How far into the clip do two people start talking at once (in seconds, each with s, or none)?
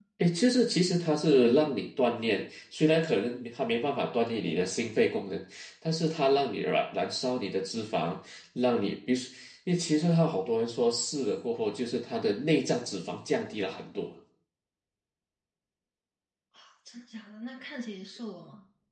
none